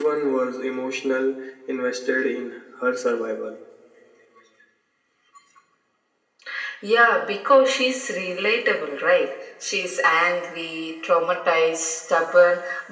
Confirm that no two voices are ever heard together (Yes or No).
Yes